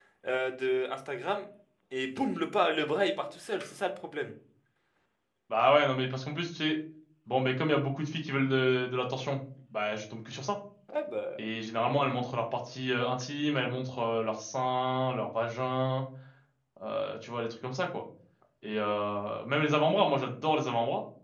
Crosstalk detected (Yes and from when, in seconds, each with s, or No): No